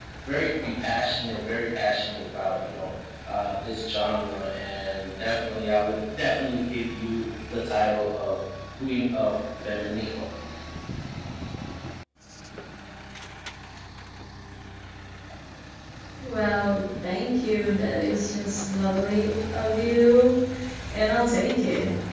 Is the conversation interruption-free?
Yes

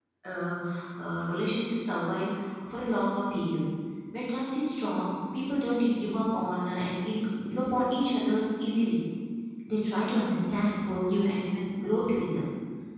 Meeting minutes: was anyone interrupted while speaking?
No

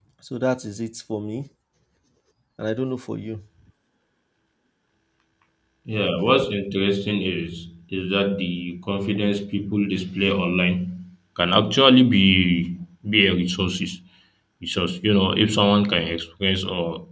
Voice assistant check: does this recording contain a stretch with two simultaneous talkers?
No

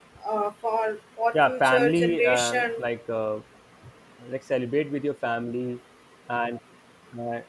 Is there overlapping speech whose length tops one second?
Yes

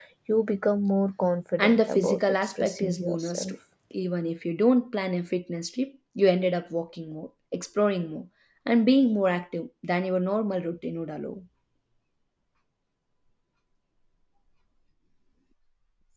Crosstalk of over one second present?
Yes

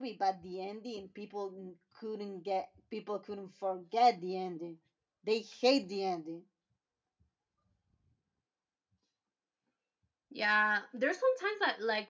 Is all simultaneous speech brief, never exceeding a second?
Yes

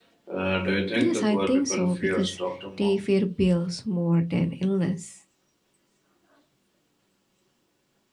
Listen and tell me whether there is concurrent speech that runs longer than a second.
Yes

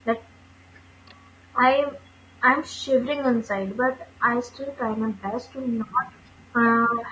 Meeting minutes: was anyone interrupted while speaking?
No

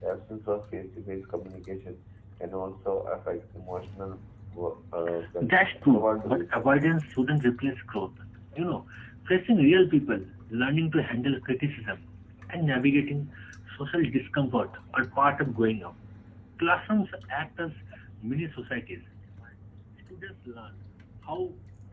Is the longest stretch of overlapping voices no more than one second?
No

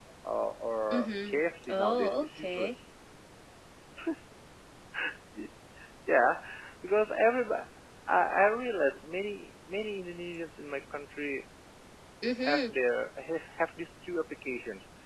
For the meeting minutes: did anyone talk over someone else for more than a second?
Yes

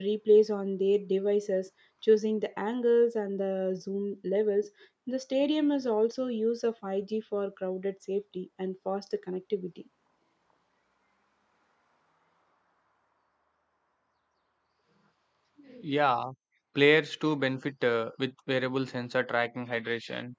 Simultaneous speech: No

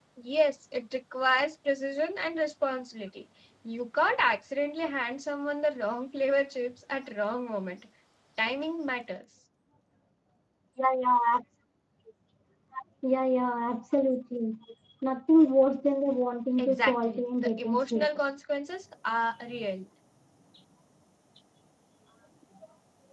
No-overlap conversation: No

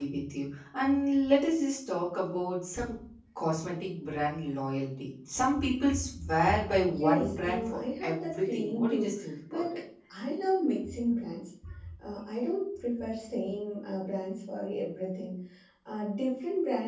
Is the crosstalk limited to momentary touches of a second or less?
No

